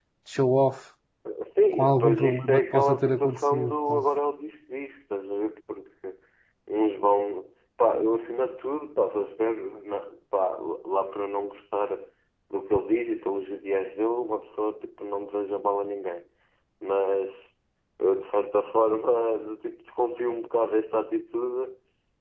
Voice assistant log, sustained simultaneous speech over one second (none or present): present